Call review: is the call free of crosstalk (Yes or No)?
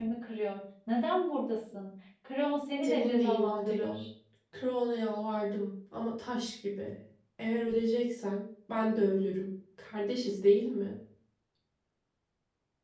No